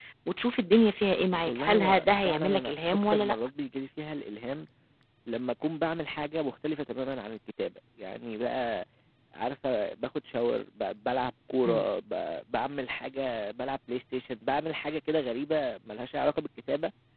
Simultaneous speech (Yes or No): Yes